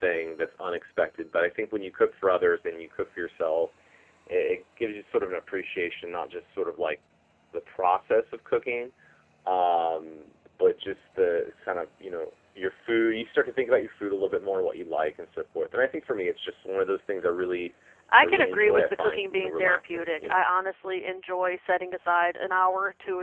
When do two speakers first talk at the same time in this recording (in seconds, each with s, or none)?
18.2 s